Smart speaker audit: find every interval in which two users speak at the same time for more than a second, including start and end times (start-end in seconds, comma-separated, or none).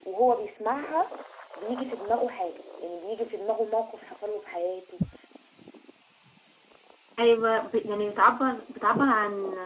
none